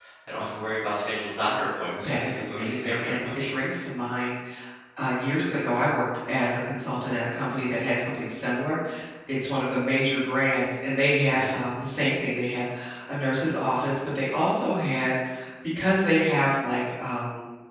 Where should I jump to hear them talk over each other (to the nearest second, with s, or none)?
2 s